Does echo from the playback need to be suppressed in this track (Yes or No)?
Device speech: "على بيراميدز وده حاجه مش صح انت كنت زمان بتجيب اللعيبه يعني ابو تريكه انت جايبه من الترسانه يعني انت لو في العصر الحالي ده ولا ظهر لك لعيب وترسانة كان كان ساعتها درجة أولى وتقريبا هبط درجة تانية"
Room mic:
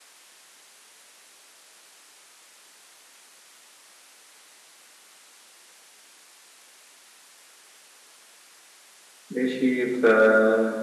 No